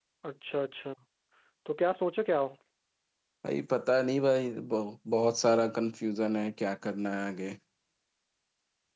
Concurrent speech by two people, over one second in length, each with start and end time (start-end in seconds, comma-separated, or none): none